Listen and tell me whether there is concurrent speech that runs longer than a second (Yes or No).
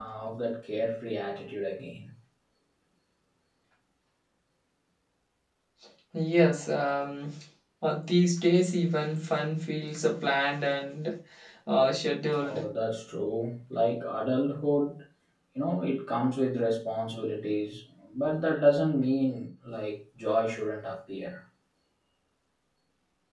No